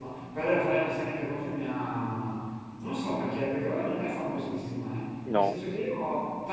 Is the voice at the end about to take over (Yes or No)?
No